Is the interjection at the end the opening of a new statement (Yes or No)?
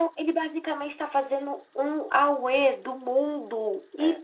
No